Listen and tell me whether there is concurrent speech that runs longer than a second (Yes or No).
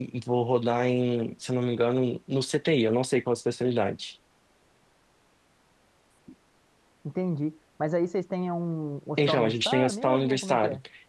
Yes